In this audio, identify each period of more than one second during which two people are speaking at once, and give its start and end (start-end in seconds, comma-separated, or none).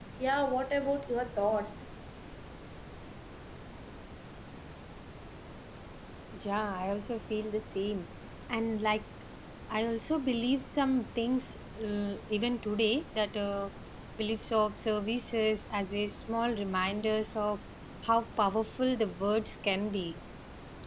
none